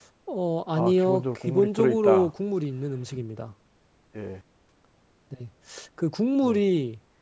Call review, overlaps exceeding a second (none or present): present